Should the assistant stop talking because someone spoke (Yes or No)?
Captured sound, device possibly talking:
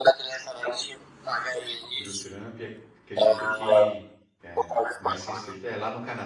Yes